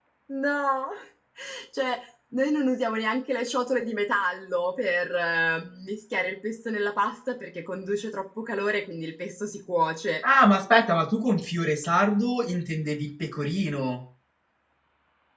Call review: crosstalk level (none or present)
none